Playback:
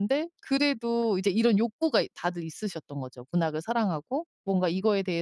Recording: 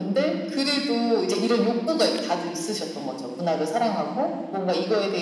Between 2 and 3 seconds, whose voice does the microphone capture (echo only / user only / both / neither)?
echo only